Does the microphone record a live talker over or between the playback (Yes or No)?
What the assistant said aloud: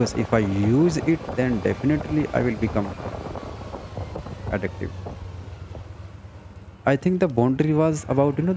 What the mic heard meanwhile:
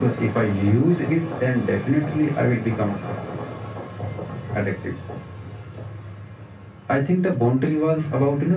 No